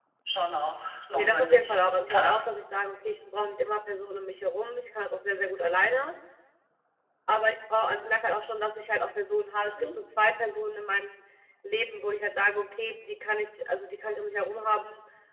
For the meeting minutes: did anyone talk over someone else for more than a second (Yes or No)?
Yes